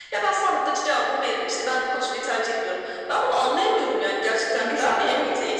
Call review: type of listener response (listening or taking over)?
taking over